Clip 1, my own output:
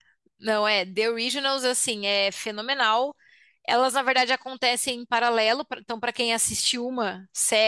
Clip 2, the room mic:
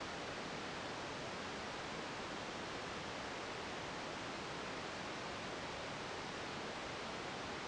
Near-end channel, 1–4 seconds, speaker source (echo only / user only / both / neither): neither